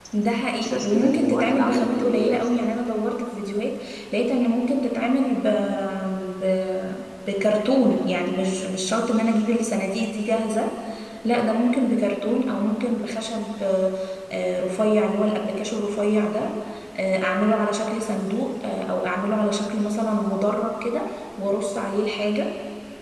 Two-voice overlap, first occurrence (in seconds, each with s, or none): 0.5 s